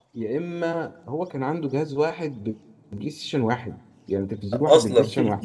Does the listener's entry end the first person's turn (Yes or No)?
No